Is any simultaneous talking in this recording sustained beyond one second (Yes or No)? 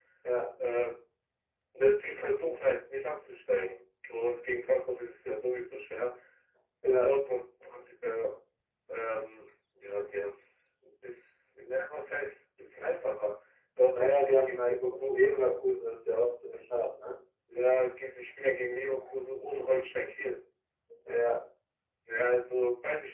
Yes